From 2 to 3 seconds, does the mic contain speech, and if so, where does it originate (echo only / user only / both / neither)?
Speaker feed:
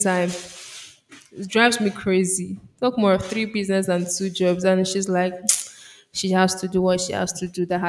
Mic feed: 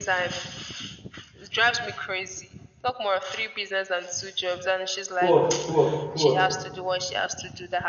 echo only